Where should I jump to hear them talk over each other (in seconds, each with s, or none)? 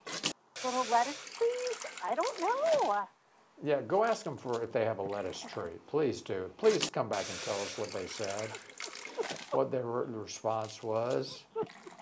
none